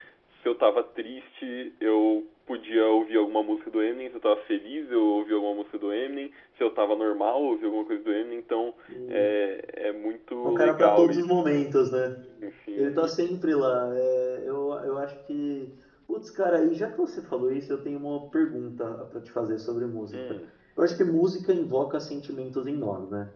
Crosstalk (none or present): present